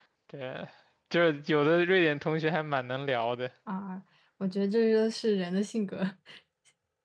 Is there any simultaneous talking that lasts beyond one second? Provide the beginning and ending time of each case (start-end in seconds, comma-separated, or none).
none